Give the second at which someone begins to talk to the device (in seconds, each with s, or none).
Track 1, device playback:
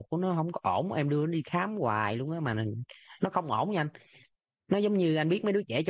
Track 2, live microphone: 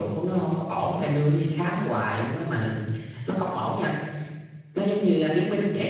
none